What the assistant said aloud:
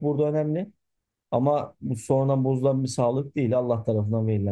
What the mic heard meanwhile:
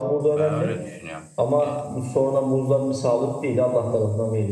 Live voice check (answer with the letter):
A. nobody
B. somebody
B